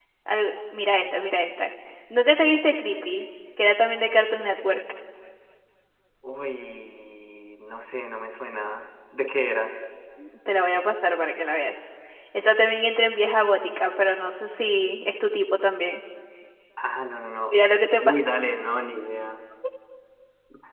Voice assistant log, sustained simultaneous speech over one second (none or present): none